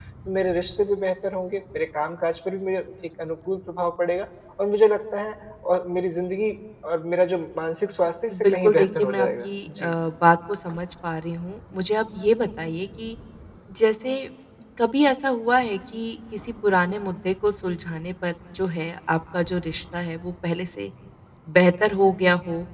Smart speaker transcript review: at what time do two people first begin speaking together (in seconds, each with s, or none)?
8.3 s